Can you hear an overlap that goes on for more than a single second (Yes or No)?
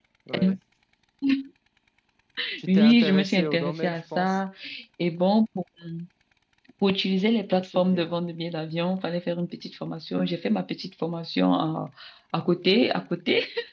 Yes